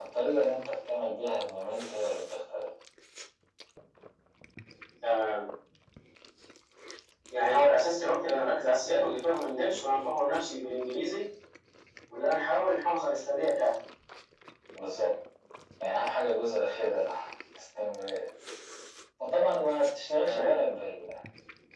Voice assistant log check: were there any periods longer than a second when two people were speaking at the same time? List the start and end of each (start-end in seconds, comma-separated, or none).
none